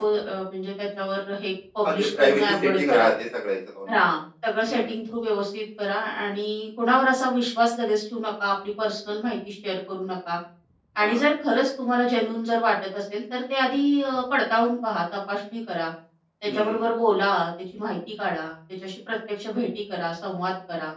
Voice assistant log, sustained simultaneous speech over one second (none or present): present